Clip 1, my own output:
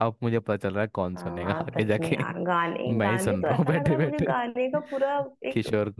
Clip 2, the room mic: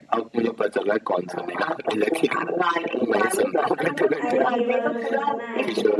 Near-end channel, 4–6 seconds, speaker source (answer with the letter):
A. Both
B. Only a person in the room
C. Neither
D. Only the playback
A